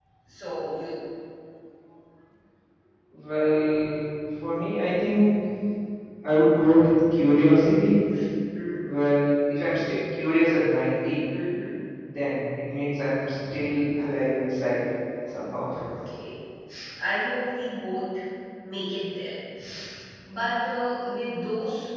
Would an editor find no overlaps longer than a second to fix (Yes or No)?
Yes